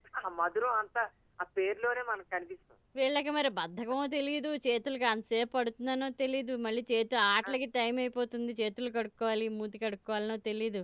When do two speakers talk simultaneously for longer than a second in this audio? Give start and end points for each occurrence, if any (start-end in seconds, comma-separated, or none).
none